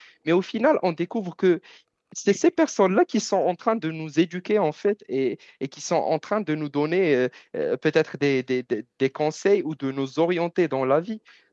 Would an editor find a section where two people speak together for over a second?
No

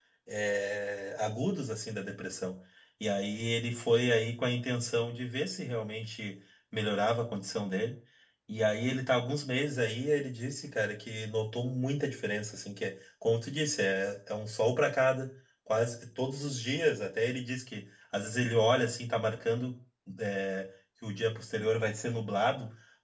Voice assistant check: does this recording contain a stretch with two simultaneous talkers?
No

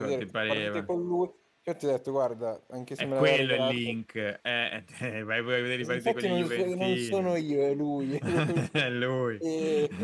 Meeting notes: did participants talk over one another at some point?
Yes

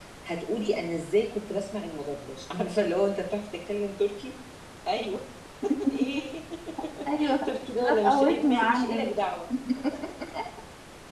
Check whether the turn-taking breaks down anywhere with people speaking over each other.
Yes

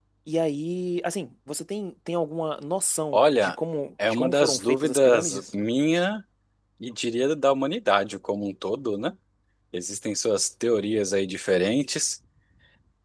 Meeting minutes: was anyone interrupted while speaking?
Yes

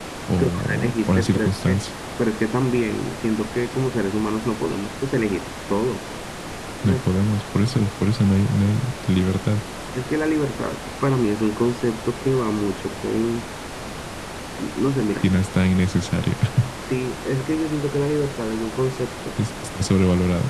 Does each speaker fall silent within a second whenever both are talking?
No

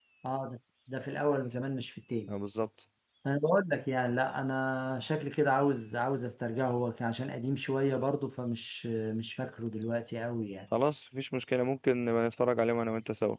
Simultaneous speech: No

